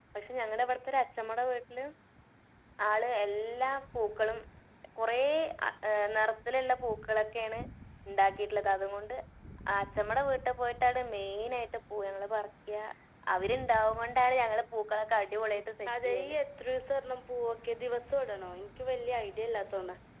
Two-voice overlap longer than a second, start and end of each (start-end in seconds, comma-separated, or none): none